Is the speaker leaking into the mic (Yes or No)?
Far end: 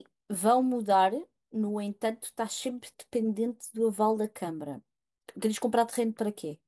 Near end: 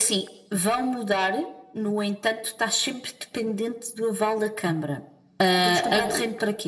Yes